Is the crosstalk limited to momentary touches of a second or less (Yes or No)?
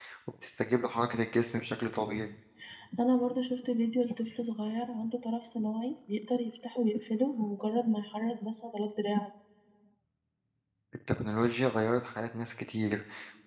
Yes